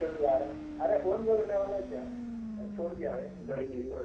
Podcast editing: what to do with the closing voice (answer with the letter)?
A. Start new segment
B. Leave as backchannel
B